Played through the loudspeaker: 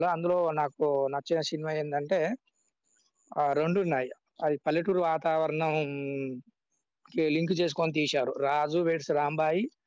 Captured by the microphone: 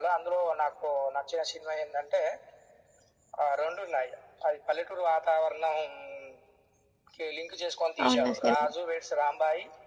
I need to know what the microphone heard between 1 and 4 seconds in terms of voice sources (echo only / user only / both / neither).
echo only